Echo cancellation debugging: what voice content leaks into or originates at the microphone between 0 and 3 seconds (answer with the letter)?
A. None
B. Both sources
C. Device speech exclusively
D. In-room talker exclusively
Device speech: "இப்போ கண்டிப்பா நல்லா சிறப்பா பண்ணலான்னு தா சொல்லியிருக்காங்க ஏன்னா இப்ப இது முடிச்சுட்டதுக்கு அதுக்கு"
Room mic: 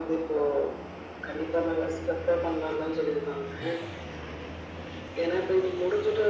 C